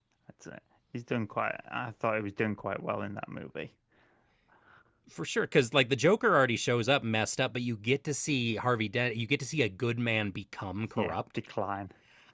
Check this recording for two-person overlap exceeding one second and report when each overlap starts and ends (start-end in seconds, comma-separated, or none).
none